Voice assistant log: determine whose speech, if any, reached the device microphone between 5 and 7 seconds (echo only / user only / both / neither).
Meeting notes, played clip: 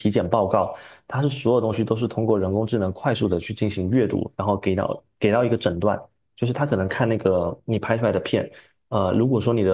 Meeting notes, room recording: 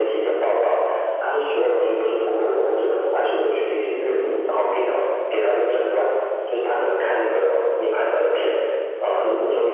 echo only